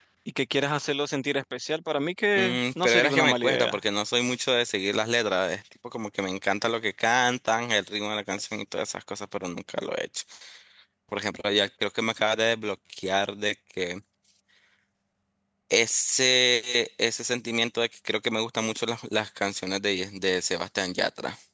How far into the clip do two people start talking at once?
2.4 s

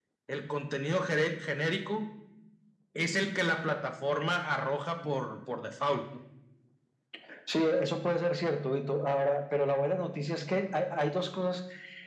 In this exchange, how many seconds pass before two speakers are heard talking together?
none

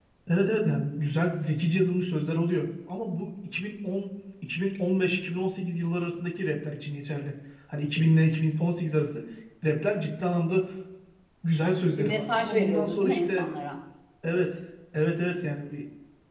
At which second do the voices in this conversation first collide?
12.0 s

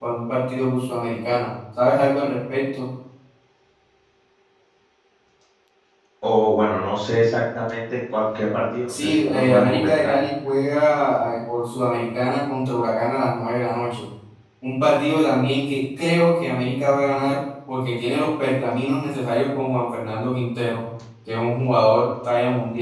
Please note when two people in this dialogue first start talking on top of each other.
8.9 s

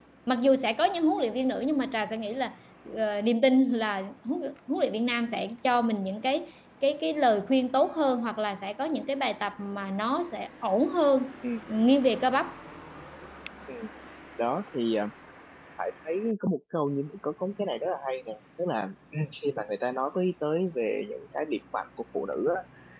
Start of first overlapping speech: none

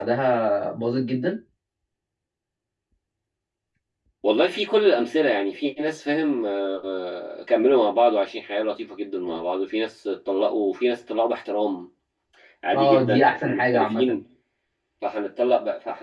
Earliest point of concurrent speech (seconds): 12.7 s

